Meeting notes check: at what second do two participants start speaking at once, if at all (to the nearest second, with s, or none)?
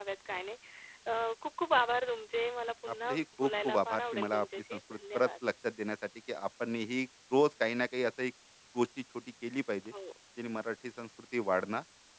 3 s